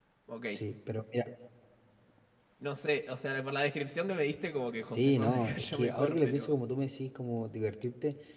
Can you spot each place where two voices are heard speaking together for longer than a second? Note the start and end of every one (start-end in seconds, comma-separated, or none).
5.0-6.5